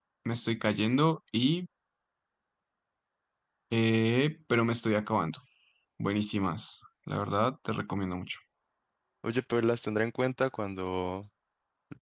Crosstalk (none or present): none